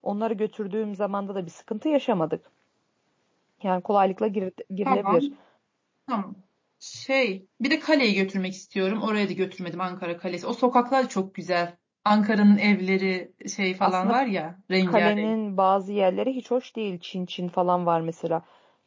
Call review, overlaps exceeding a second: none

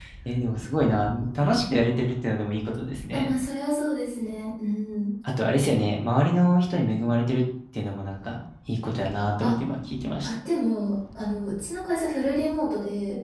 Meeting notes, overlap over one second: none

